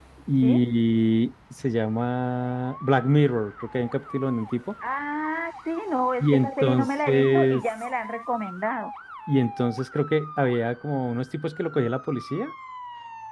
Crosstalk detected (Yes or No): Yes